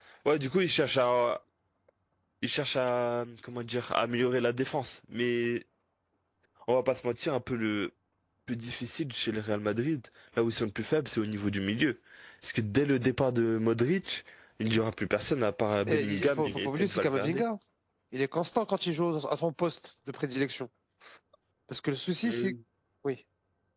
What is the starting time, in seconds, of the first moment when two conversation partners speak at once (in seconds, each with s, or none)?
15.9 s